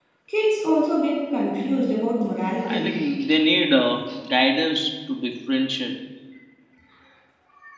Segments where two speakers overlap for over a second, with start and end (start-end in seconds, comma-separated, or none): none